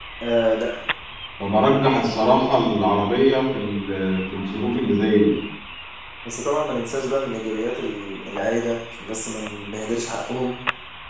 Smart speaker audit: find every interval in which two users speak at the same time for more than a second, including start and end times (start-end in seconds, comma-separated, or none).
none